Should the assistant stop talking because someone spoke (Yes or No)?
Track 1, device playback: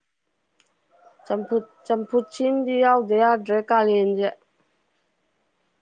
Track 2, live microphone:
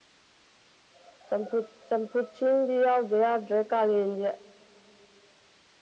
No